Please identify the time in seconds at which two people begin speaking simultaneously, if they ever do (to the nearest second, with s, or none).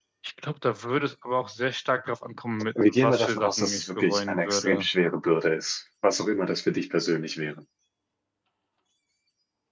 3 s